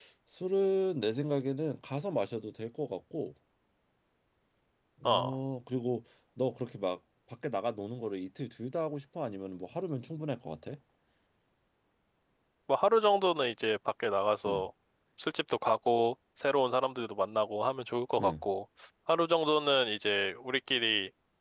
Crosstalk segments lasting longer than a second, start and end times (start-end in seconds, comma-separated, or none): none